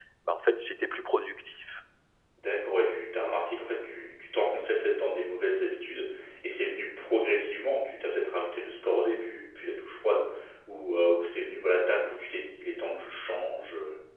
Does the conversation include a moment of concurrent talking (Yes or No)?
No